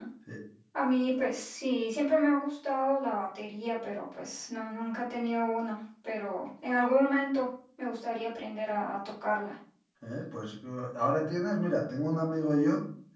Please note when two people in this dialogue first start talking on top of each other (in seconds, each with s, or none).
none